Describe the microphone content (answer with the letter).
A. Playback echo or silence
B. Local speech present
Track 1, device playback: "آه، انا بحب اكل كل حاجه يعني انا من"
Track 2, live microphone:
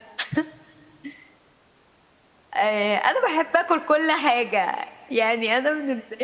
A